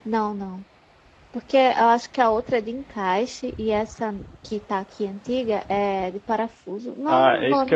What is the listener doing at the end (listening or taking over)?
taking over